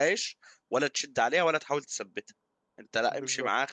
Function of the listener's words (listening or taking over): listening